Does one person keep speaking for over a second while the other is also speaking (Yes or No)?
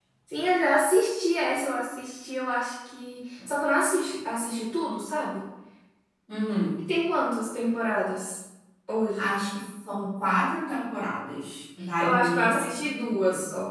Yes